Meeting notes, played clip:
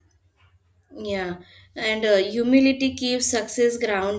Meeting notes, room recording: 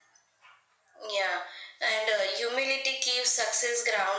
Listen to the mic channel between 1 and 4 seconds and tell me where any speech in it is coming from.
echo only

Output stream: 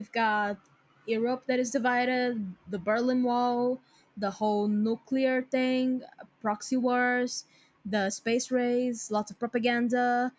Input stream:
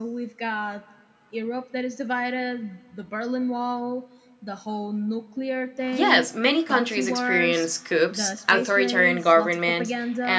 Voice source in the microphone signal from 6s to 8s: both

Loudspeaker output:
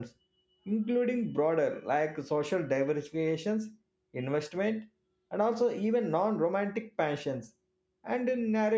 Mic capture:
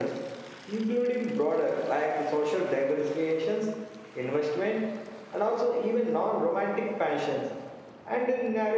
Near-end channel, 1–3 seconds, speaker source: echo only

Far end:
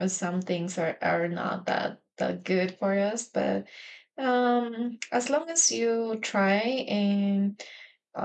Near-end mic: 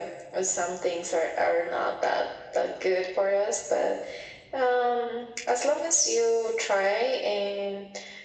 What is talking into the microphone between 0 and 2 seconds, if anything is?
echo only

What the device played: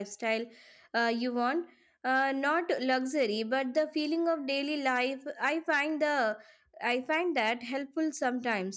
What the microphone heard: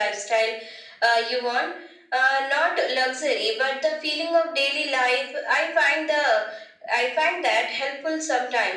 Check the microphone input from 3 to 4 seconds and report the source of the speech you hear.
echo only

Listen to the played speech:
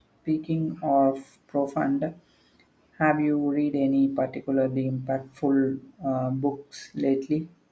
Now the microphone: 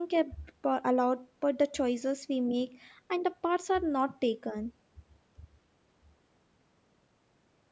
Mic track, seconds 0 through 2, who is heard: user only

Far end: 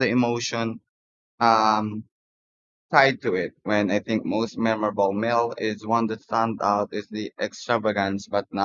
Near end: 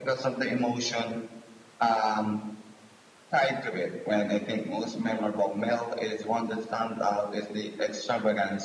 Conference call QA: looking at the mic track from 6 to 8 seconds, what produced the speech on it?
echo only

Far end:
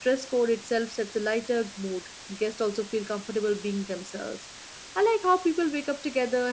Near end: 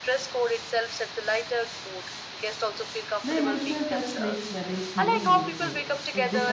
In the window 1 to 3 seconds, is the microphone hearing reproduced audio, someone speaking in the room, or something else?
echo only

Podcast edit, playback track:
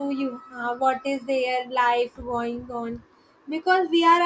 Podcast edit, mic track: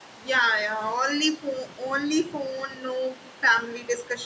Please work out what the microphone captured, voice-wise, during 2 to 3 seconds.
user only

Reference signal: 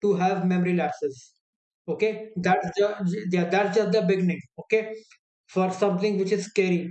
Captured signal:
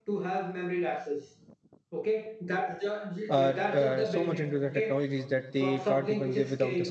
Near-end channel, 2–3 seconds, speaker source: echo only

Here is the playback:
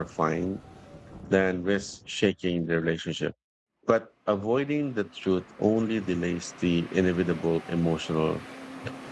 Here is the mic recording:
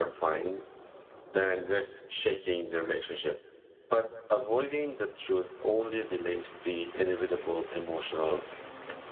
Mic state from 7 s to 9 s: echo only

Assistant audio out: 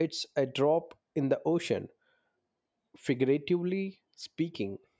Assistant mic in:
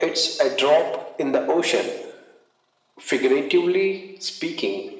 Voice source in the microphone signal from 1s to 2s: echo only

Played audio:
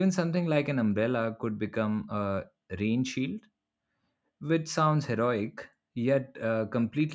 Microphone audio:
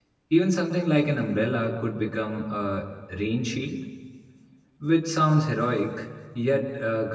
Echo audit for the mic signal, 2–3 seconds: echo only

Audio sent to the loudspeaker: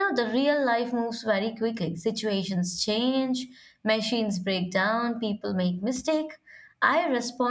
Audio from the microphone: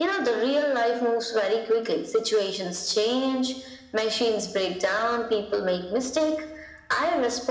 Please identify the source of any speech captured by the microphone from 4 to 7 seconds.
echo only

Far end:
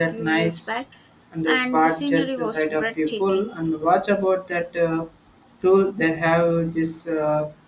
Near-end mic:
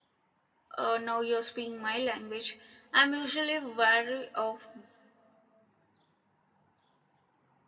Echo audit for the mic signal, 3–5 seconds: user only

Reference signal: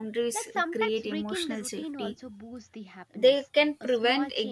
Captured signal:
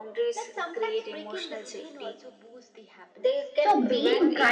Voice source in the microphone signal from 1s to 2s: echo only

